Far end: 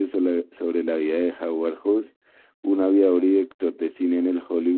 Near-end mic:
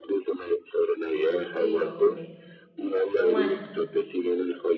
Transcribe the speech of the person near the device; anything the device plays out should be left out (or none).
Yo creo que yo voy a poner Romania.